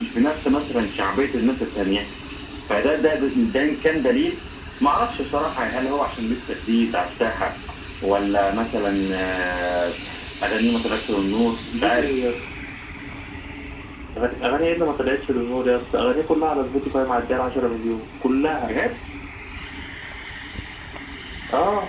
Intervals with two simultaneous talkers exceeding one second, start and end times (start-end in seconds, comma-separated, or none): none